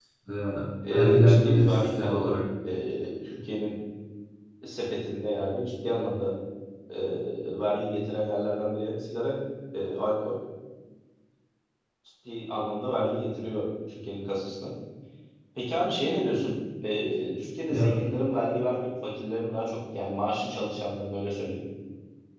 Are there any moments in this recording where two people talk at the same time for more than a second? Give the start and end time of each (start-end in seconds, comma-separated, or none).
0.9-2.4